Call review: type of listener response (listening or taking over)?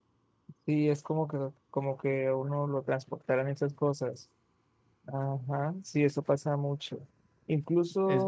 listening